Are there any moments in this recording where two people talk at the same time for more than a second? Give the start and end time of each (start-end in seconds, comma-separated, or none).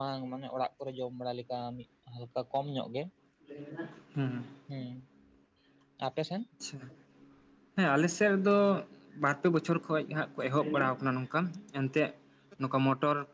none